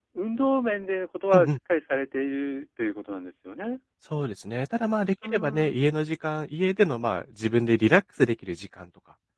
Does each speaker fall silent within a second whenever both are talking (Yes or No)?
Yes